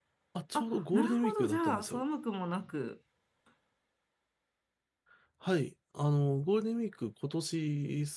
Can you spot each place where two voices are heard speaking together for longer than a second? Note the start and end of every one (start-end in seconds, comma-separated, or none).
0.5-2.0